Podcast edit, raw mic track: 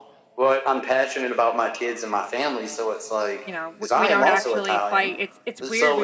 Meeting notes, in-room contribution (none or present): present